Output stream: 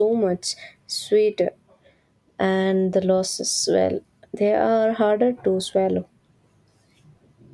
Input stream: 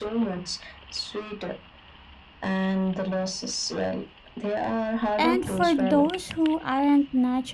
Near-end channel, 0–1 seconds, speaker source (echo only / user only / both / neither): echo only